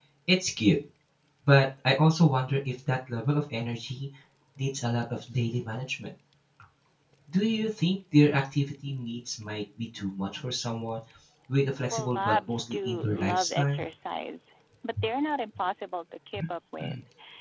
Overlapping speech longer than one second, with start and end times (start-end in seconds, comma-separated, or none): 11.9-13.8